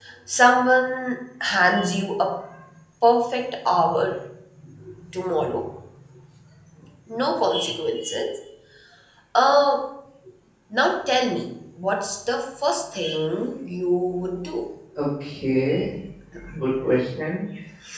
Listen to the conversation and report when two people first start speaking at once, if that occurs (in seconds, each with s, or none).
none